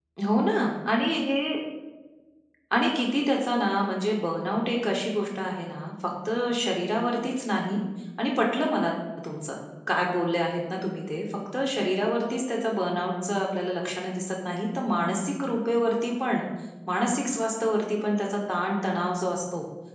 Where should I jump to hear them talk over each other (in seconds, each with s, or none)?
none